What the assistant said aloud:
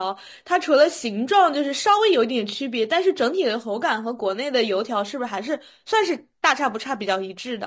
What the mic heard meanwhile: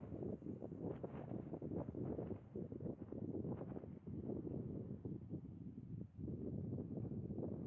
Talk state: neither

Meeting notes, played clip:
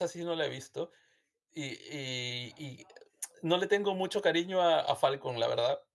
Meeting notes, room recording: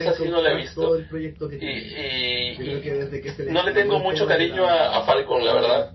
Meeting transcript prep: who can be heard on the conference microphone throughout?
both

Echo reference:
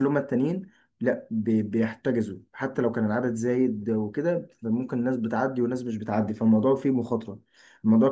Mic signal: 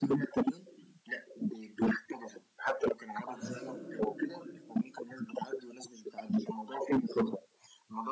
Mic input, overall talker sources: both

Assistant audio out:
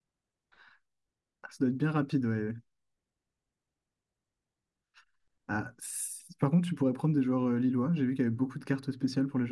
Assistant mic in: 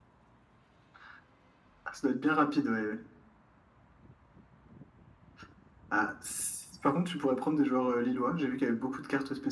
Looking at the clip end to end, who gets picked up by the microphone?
echo only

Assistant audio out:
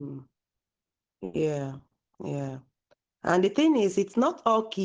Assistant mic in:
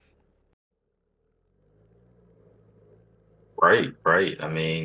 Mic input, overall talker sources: user only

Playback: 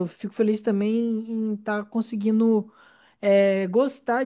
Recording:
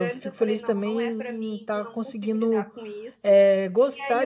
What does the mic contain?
both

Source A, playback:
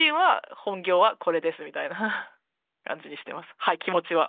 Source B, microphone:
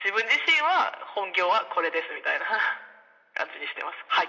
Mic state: echo only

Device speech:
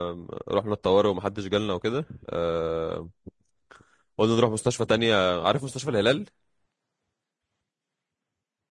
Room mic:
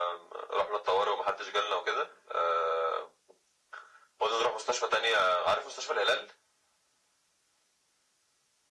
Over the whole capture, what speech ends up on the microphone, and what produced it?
echo only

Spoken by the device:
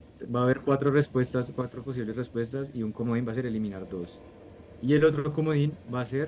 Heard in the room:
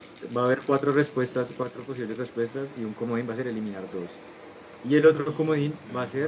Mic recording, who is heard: both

